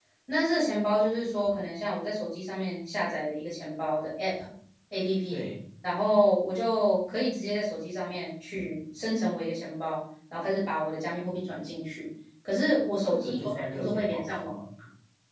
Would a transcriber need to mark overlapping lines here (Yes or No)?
Yes